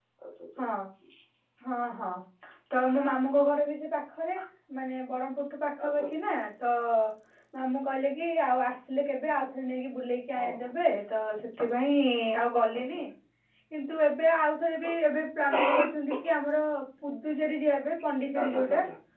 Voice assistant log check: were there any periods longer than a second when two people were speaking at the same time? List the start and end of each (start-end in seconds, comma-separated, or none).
none